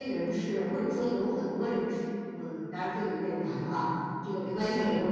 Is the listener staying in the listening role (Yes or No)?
Yes